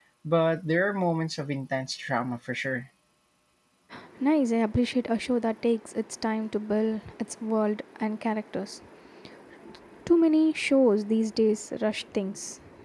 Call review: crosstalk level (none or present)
none